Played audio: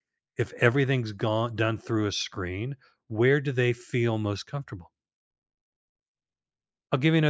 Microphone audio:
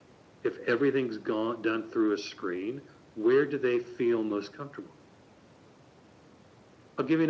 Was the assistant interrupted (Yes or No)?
No